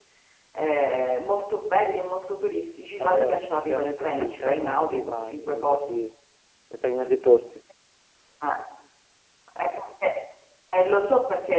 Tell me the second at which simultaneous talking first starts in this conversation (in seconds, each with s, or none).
3.0 s